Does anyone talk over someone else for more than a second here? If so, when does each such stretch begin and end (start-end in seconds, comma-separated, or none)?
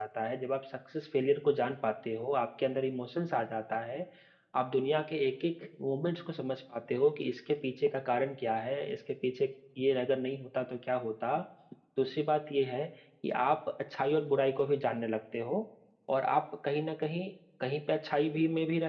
none